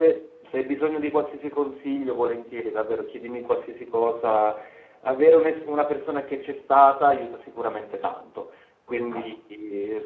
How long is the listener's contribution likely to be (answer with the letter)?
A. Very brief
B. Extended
A